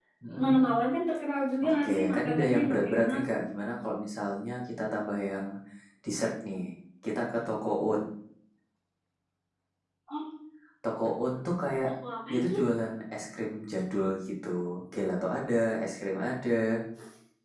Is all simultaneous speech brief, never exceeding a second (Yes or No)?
No